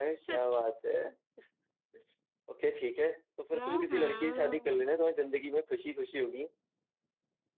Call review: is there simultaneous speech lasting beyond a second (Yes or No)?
Yes